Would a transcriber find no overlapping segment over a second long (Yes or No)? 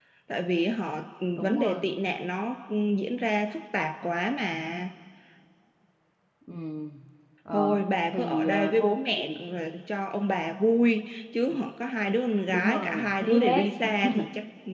No